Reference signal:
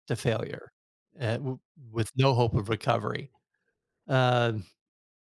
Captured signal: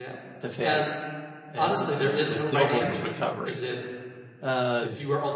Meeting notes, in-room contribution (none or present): present